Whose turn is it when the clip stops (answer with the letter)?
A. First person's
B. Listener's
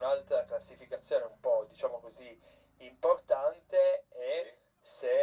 A